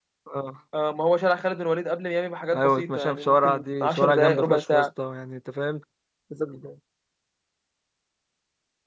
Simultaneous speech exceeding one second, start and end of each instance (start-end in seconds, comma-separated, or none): 2.5-4.9